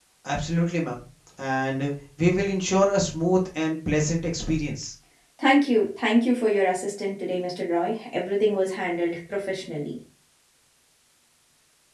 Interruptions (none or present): none